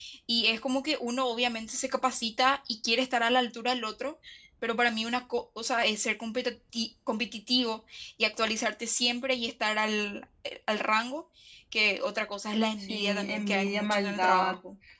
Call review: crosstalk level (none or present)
present